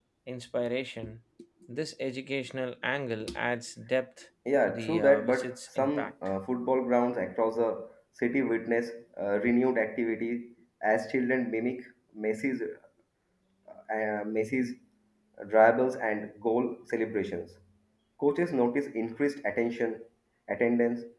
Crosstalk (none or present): present